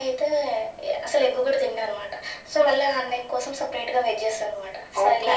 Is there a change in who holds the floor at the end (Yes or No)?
Yes